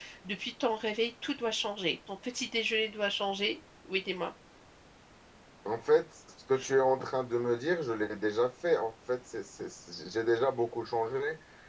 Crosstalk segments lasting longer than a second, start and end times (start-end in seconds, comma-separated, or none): none